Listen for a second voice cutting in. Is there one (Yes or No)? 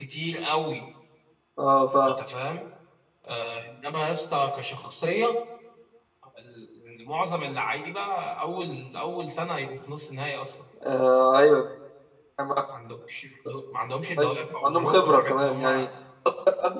Yes